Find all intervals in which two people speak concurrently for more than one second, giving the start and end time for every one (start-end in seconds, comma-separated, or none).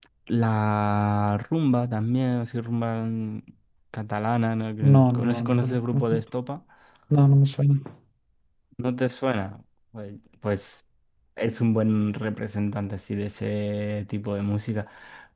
4.8-6.2